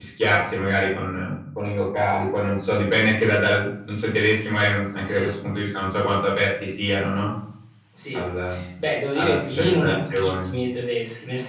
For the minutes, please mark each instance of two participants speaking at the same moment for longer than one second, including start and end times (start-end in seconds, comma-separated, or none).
9.2-10.5